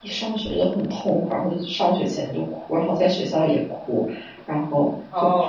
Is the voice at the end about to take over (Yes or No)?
Yes